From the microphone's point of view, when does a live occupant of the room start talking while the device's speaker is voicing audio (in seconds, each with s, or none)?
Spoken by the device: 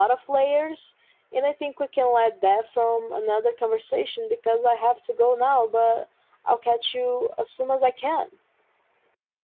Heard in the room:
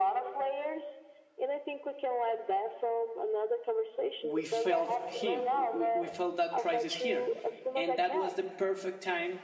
4.2 s